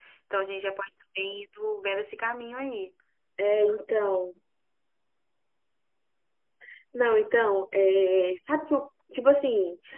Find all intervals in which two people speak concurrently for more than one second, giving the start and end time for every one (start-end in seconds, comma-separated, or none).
none